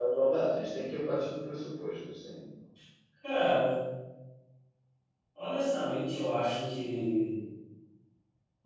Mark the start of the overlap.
none

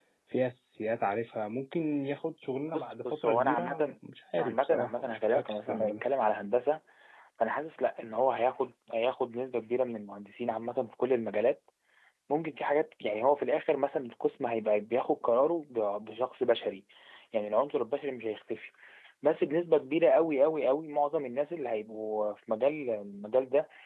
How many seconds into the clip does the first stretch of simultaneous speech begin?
3 s

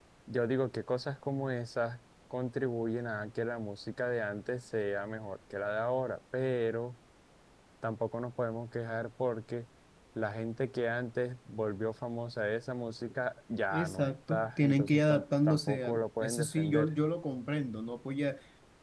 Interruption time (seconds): 14 s

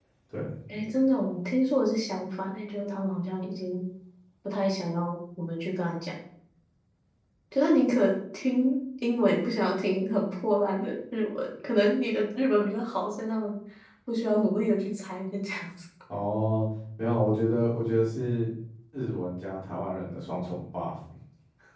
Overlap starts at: none

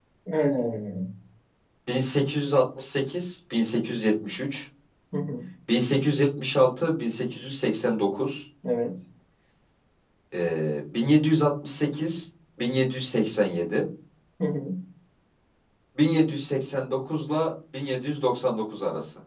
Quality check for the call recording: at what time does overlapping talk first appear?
none

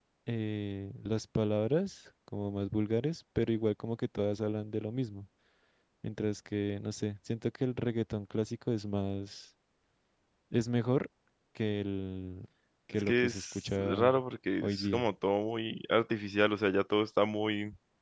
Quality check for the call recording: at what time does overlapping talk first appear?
13 s

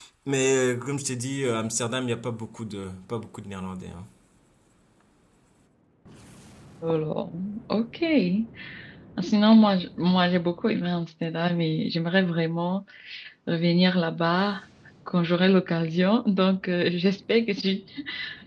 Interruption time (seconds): none

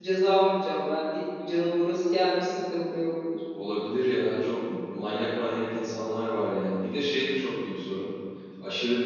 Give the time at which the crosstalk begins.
none

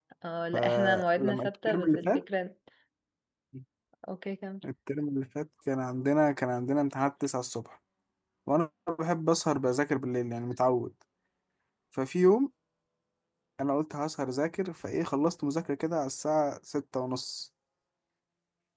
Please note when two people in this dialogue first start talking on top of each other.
1 s

